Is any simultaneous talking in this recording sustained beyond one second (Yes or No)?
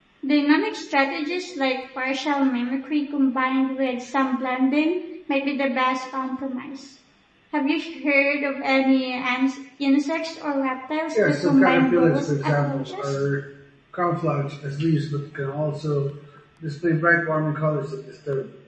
Yes